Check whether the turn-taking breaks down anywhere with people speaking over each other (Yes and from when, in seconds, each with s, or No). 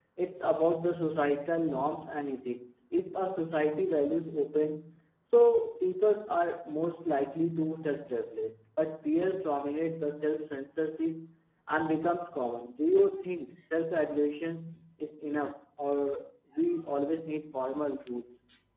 No